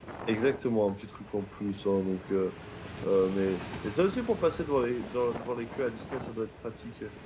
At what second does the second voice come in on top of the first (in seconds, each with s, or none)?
none